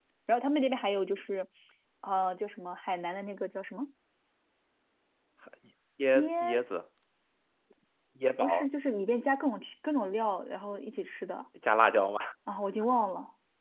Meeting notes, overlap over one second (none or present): none